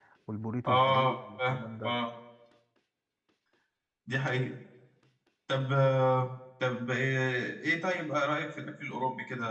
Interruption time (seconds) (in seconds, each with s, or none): 0.7 s